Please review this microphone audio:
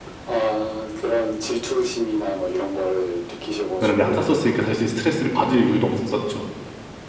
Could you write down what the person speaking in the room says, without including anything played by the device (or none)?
왜냐면 얕았었으니까 사실 스트레스를 받을 이유도 없었었죠.